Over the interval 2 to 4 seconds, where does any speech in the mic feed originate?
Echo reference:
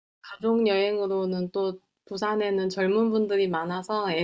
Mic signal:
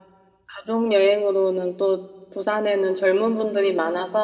echo only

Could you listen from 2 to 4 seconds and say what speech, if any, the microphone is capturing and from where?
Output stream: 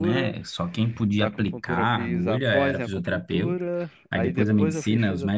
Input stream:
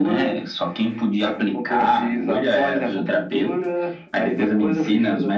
echo only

